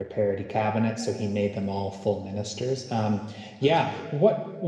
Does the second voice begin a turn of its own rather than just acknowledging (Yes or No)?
No